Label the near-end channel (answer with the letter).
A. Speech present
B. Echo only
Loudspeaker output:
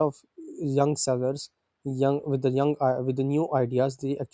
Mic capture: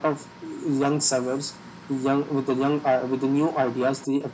B